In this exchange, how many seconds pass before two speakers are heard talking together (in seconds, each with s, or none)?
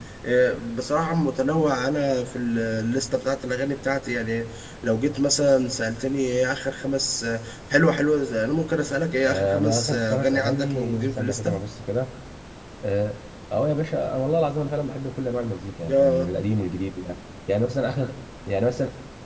9.3 s